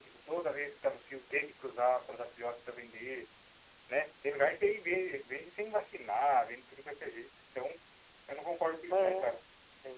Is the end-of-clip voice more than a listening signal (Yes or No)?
Yes